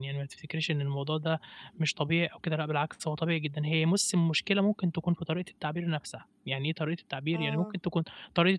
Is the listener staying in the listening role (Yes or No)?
Yes